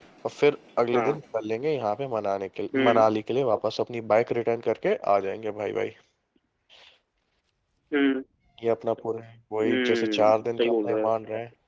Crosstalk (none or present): present